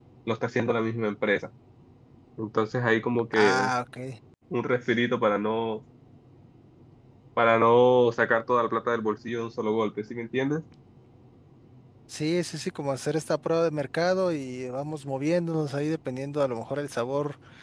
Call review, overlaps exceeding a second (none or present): none